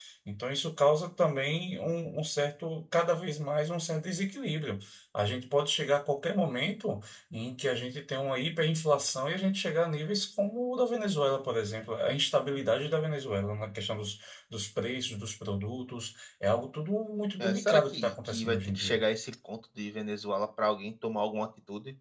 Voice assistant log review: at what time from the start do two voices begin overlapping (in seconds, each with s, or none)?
17.4 s